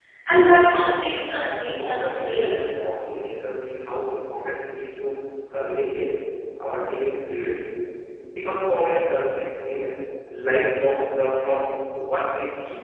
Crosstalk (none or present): present